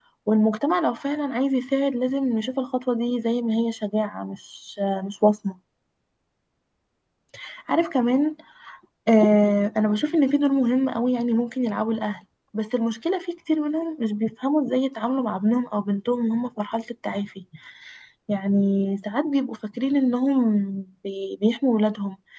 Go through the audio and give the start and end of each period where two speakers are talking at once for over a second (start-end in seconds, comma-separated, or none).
none